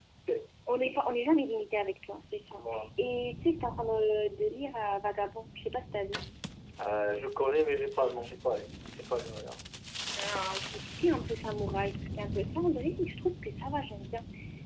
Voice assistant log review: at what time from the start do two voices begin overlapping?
none

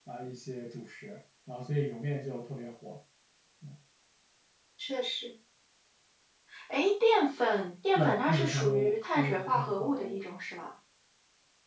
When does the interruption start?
8 s

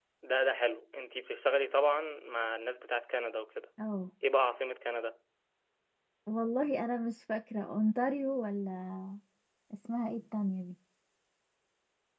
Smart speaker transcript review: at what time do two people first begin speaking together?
none

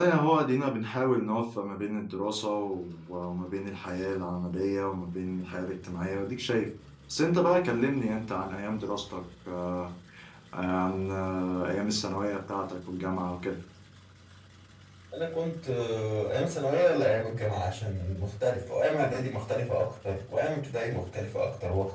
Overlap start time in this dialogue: none

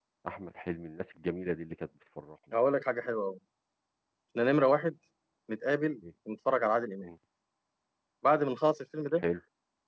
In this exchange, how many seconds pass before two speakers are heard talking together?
none

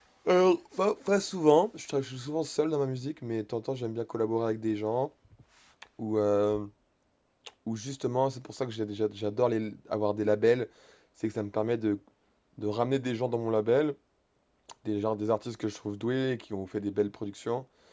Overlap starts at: none

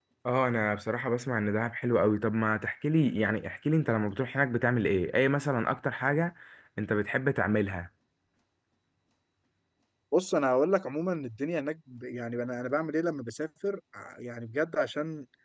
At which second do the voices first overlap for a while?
none

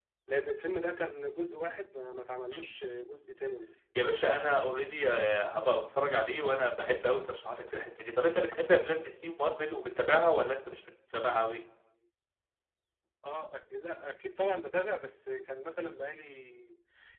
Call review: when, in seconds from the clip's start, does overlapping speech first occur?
none

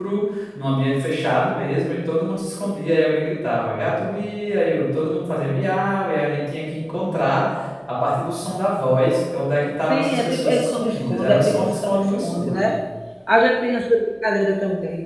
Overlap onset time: 10 s

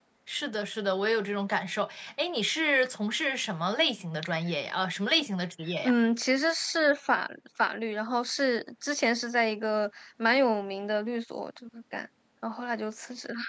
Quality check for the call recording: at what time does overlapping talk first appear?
none

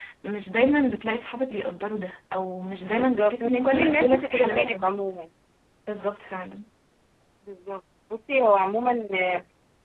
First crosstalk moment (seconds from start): 3 s

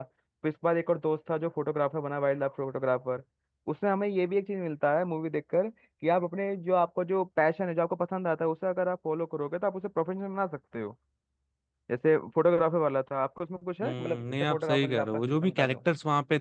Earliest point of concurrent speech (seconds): 14 s

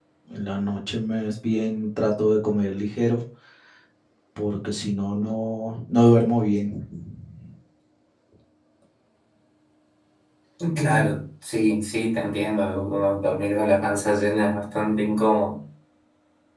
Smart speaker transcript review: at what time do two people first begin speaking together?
none

